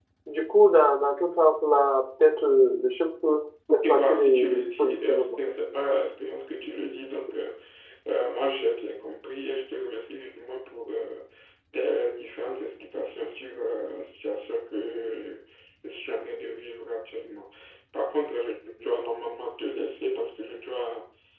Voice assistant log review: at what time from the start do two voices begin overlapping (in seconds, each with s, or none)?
3.8 s